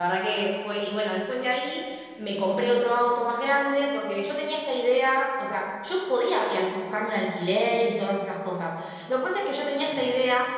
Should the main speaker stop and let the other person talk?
No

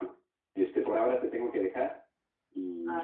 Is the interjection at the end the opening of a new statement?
No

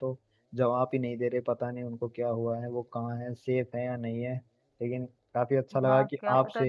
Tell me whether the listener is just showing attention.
No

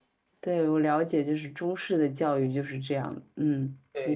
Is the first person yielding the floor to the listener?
Yes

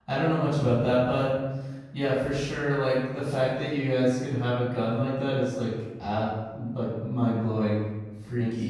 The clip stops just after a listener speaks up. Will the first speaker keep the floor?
No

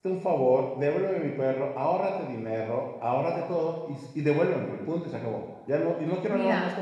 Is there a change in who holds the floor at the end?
Yes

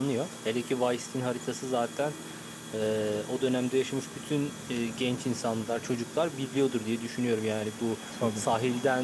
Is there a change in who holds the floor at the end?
No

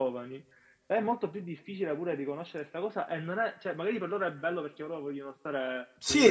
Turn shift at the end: Yes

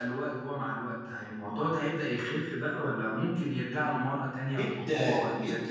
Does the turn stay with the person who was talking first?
No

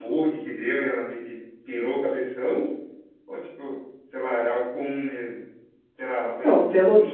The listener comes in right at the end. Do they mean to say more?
Yes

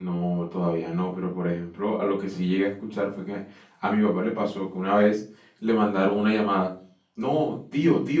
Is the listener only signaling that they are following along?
Yes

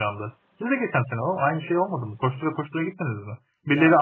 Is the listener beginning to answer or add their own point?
No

